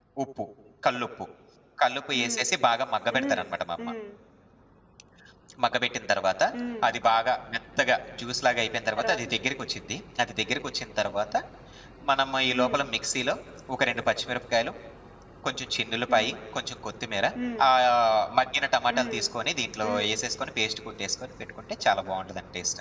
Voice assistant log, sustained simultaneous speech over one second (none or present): none